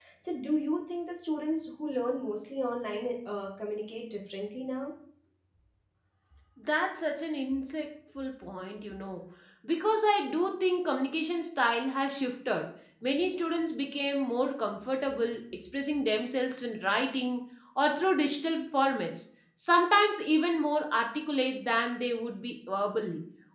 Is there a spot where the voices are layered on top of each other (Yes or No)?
No